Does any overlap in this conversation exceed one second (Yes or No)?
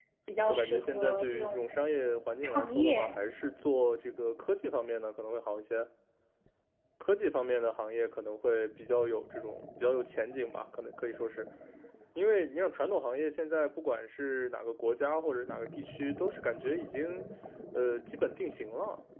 Yes